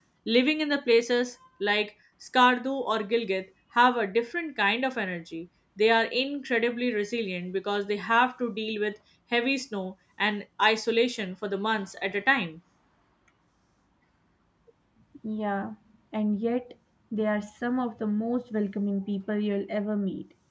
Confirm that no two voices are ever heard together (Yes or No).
Yes